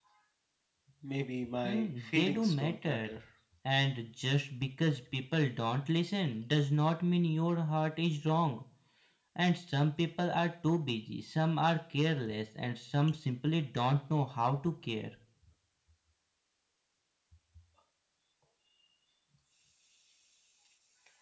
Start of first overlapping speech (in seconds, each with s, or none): 1.6 s